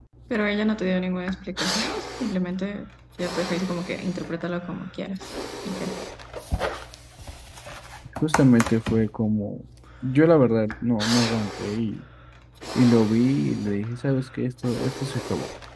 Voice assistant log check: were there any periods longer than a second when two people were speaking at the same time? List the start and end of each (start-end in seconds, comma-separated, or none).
none